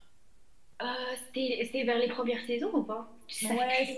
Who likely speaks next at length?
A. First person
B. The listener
B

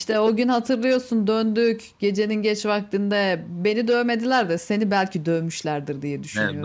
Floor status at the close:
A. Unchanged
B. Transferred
B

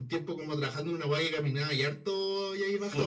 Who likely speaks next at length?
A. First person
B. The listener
B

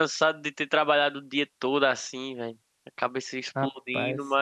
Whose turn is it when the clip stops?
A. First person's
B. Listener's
A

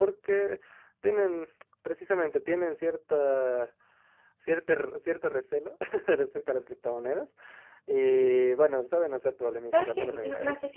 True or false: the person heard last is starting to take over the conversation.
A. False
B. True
B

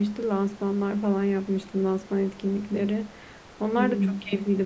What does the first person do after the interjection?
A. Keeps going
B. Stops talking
A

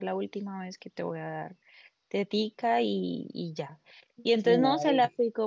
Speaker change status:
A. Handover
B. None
B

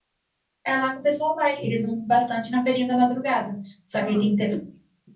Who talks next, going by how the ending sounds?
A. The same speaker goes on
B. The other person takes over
A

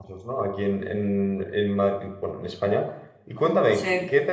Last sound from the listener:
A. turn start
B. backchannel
B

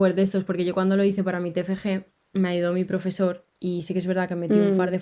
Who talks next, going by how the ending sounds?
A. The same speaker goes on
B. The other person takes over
A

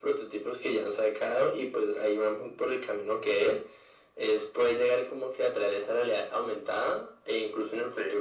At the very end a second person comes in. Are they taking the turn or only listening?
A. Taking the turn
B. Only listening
B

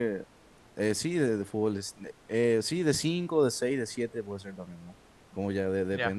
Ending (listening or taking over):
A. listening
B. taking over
A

